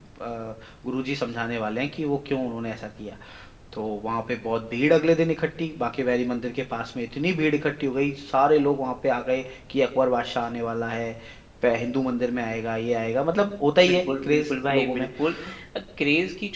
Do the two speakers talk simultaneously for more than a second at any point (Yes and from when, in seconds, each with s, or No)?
Yes, from 13.8 s